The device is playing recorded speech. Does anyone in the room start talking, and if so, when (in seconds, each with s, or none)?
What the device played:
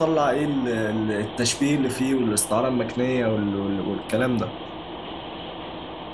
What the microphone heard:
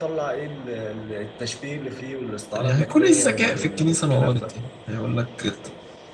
2.6 s